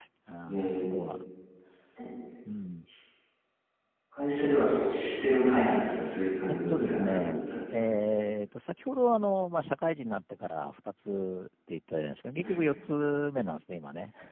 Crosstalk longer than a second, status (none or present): present